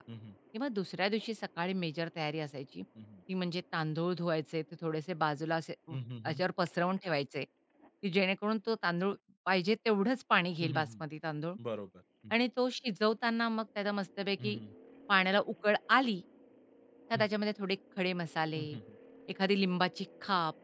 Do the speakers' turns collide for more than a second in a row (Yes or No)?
No